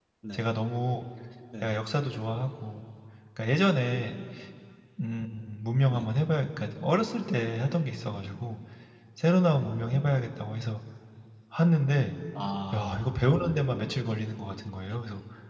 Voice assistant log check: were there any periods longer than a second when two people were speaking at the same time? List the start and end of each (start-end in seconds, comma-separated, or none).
none